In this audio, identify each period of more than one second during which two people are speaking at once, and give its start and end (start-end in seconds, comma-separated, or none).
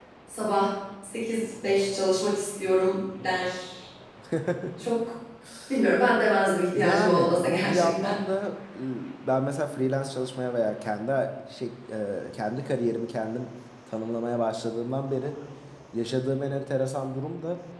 6.8-8.2